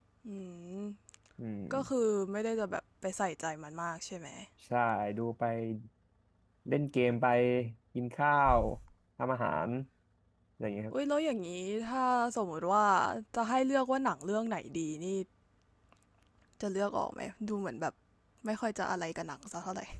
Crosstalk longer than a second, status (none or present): none